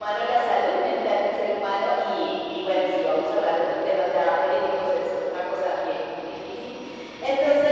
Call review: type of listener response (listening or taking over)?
listening